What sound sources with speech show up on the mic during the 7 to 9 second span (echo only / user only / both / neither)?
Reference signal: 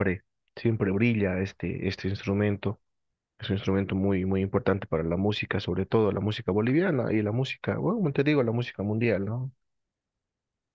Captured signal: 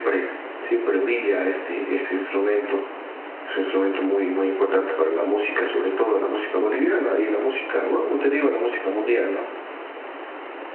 echo only